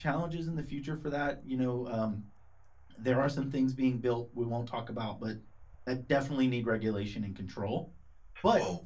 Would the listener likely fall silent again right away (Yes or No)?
Yes